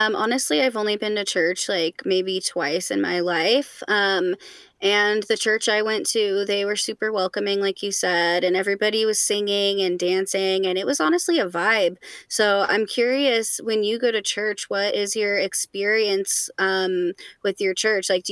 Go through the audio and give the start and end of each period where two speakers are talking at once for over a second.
none

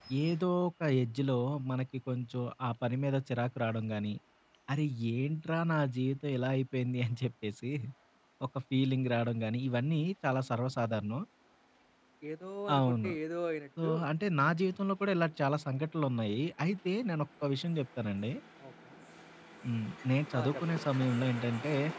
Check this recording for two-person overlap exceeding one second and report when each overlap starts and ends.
none

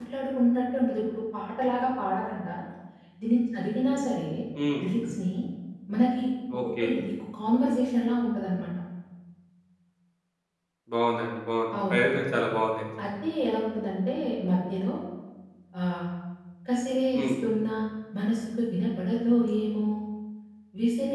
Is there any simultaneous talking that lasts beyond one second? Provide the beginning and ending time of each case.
none

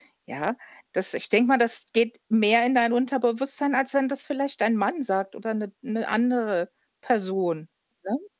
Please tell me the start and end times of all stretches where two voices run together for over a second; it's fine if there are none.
none

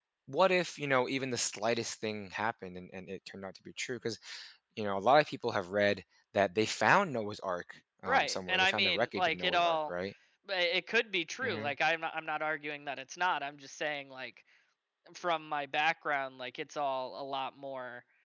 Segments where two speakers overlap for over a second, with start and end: 8.1-9.9

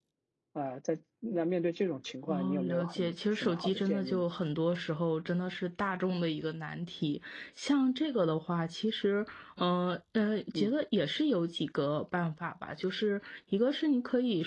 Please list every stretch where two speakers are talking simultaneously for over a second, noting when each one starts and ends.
2.3-4.2

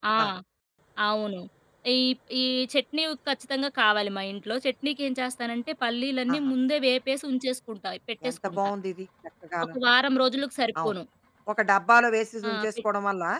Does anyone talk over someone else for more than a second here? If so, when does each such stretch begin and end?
none

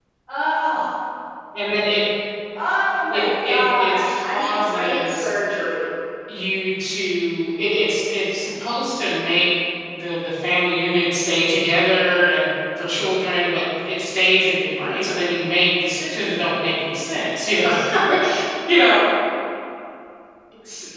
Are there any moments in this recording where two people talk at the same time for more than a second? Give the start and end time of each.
3.1-5.3

